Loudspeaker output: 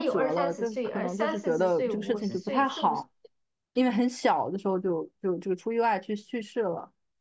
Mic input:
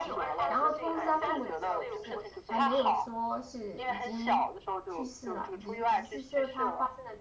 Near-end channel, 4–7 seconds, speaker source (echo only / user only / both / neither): both